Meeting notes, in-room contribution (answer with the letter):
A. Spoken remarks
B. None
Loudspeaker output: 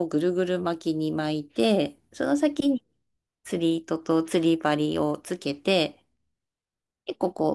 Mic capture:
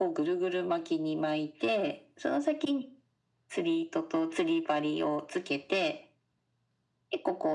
B